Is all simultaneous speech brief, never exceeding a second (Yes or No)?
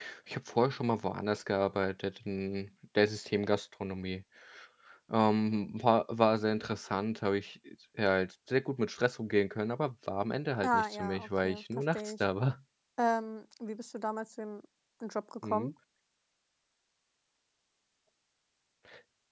No